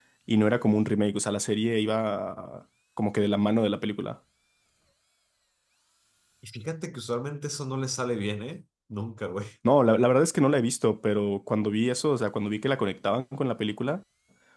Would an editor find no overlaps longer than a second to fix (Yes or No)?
Yes